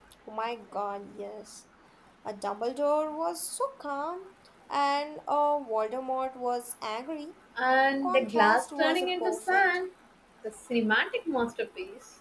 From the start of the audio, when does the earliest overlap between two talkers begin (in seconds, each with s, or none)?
8.0 s